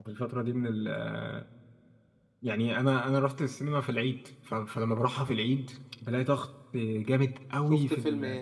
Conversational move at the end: taking over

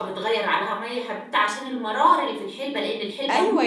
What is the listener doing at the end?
taking over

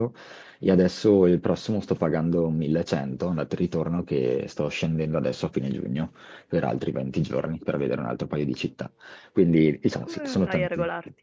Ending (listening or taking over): taking over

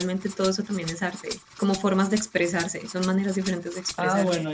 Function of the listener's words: taking over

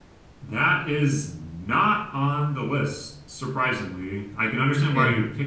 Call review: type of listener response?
listening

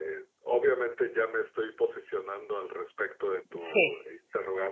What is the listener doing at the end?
listening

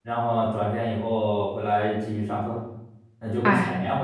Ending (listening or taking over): listening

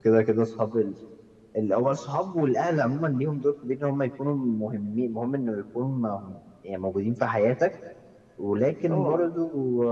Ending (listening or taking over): listening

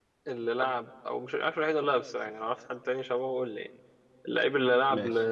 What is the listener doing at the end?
listening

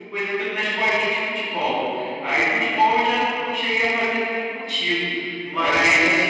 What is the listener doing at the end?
listening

